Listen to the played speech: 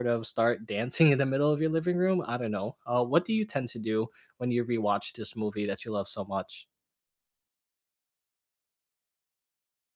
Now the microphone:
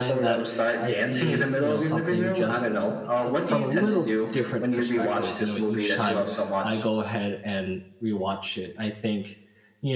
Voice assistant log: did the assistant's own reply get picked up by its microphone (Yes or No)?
Yes